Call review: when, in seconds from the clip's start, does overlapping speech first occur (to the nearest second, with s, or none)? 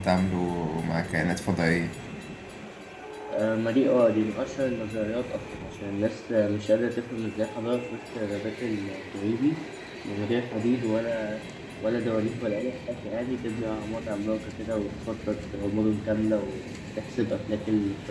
none